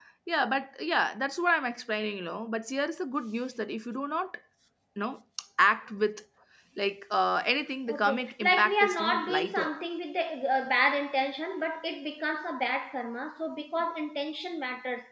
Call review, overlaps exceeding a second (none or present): present